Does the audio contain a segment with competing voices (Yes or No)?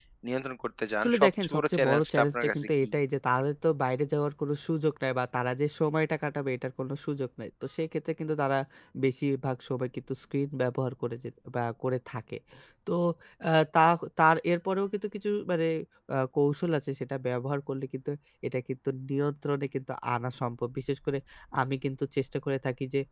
Yes